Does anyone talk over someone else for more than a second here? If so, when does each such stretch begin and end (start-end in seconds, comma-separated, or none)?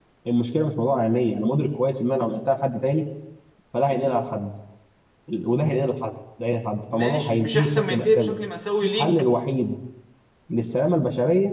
6.9-8.4